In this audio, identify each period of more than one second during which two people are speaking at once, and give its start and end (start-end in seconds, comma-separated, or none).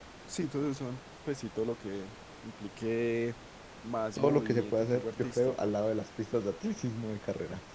4.2-5.7